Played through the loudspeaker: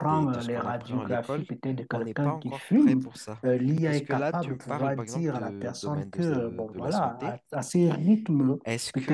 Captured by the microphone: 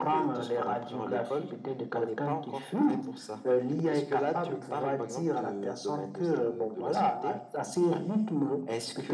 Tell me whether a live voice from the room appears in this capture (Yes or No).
No